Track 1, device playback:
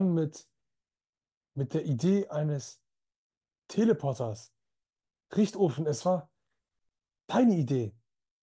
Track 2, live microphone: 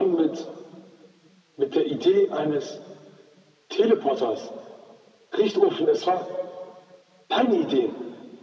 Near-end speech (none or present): none